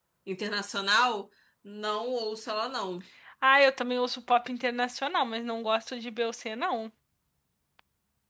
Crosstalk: none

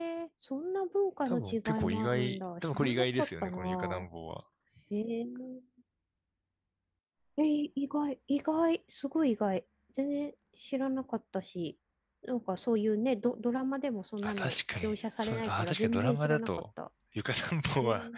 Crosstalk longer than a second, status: present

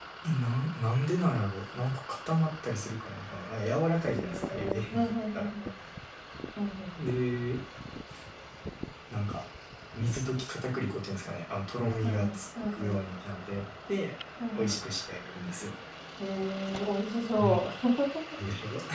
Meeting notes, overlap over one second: present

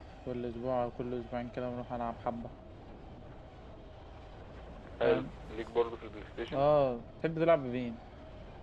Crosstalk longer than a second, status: none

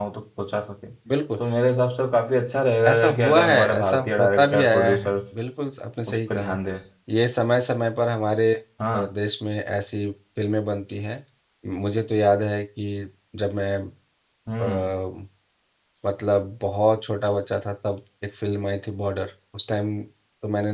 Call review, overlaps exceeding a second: present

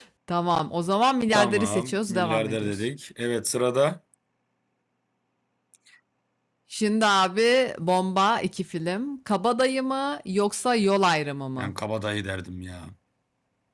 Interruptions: present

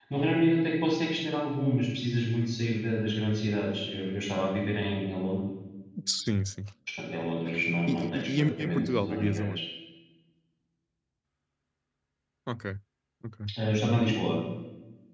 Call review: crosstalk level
present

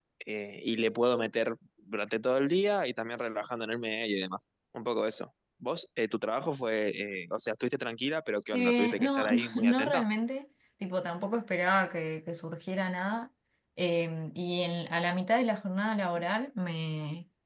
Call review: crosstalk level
present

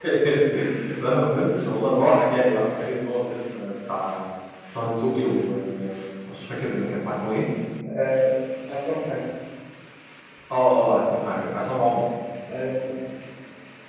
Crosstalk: none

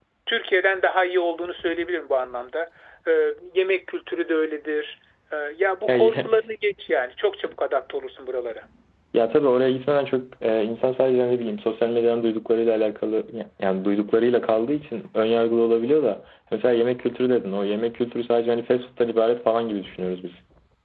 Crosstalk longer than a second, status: none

